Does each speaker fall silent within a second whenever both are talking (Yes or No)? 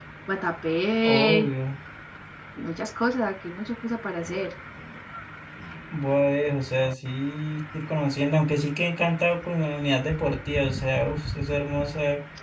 Yes